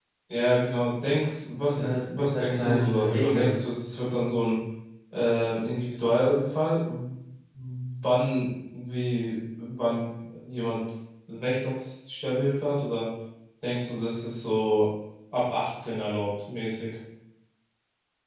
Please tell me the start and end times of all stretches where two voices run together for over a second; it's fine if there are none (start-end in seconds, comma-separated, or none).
1.7-3.6